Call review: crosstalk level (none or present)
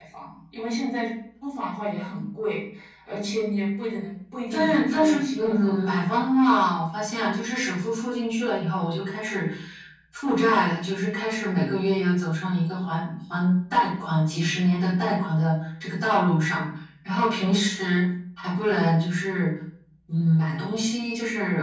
present